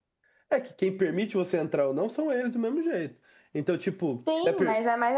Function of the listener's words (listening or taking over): taking over